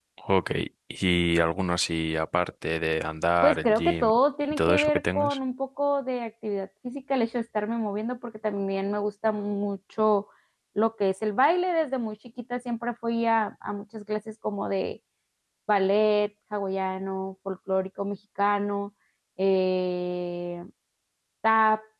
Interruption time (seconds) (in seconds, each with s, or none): 3.4 s